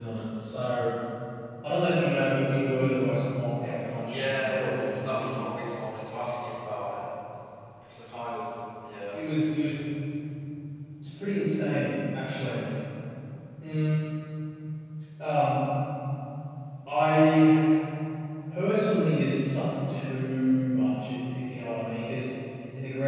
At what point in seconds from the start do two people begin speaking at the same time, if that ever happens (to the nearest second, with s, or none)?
4 s